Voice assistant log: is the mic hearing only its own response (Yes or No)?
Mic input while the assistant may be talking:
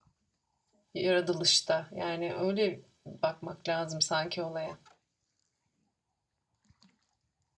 No